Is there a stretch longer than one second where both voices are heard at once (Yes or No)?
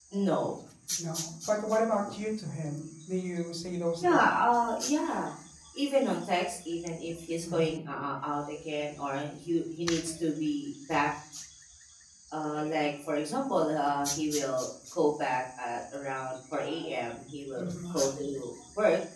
No